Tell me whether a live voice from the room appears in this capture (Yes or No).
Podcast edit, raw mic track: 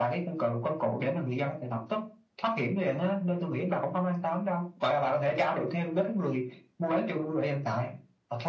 No